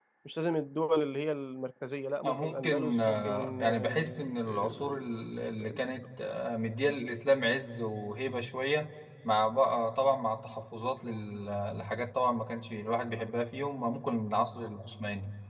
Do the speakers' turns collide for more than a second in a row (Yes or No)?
Yes